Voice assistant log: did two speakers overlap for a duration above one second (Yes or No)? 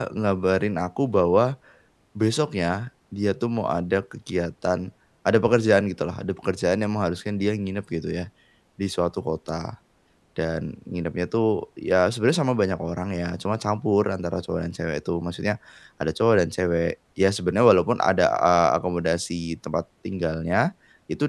No